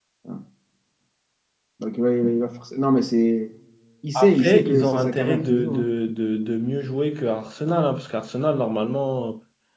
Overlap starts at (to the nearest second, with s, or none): 4 s